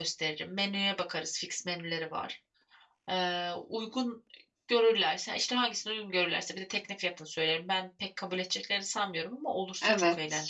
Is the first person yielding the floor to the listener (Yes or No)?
Yes